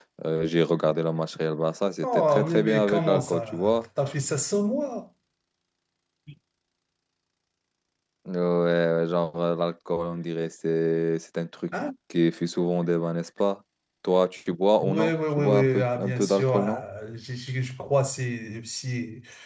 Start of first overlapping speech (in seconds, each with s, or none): 2.0 s